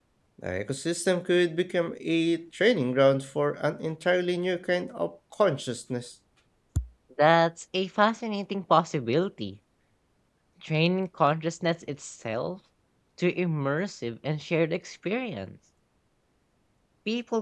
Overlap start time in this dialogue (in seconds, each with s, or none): none